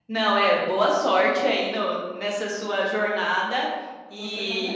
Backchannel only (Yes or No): Yes